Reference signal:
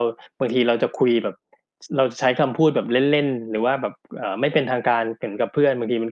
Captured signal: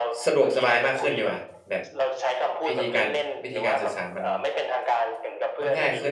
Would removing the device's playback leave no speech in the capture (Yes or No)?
No